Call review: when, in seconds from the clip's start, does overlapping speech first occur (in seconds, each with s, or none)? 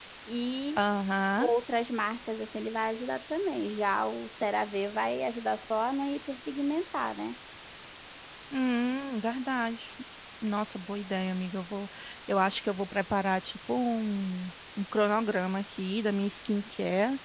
none